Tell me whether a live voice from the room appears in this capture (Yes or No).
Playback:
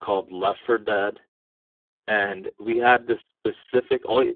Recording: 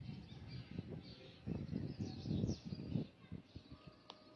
No